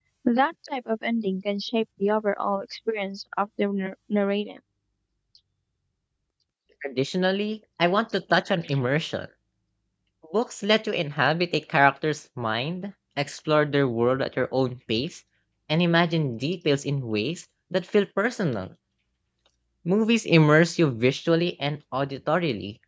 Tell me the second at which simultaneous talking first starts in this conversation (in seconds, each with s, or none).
none